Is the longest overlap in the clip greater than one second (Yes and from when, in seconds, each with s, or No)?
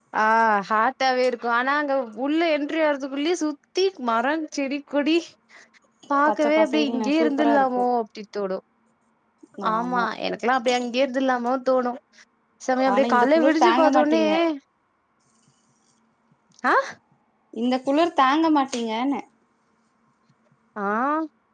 Yes, from 6.3 s